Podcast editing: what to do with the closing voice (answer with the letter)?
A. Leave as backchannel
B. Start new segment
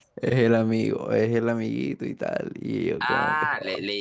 B